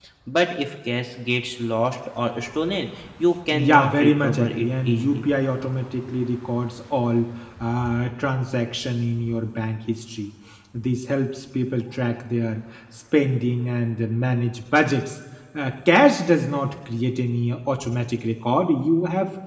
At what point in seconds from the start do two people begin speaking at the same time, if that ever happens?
3.5 s

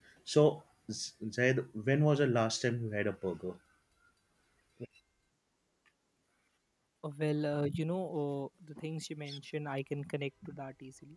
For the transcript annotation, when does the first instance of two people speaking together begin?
none

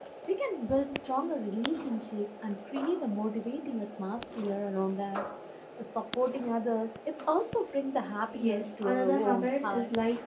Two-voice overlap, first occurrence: 8.3 s

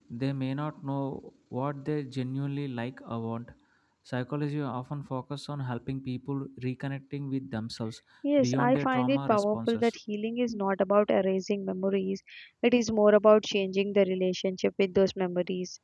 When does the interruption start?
8.4 s

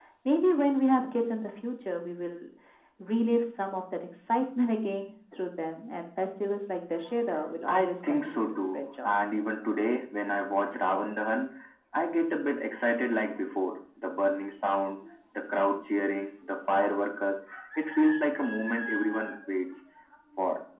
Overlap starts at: 7.7 s

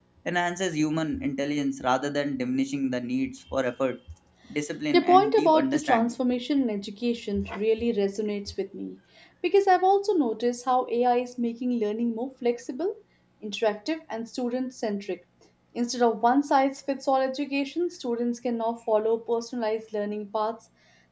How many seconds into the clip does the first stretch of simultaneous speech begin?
4.9 s

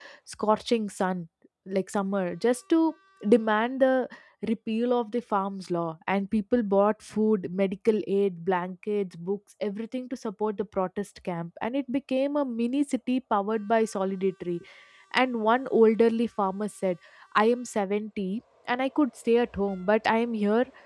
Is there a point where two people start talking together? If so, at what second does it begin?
none

